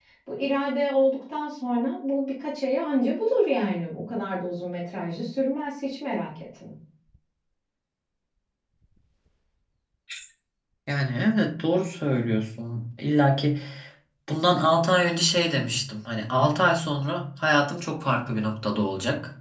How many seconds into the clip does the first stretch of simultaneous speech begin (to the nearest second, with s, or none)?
none